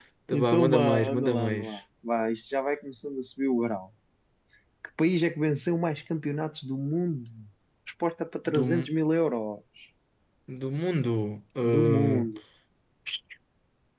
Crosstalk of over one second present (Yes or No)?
Yes